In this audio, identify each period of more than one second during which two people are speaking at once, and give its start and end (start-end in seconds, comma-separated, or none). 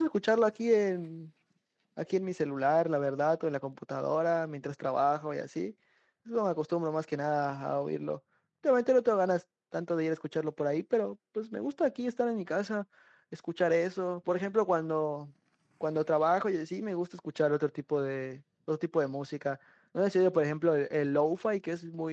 none